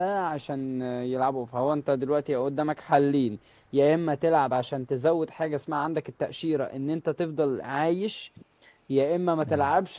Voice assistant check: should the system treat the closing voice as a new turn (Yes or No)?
No